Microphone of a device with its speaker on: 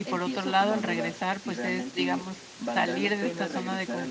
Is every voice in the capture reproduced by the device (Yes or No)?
No